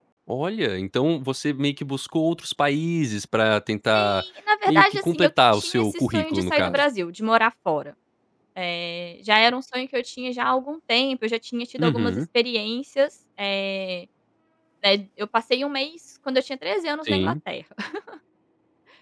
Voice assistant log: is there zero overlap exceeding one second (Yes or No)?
No